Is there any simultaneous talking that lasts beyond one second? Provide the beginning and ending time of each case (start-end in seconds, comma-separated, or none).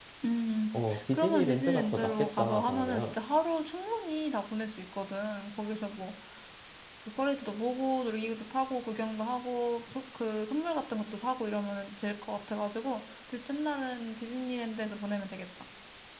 1.1-3.1